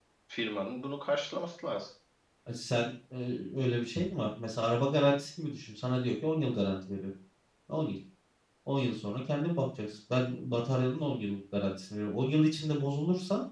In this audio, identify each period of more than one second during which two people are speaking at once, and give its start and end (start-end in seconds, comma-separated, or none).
none